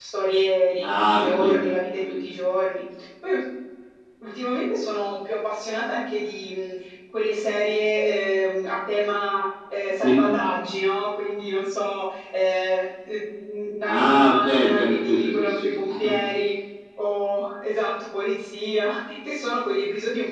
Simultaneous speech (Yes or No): Yes